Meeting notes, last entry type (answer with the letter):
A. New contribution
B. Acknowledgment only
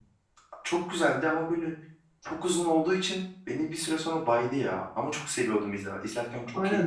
A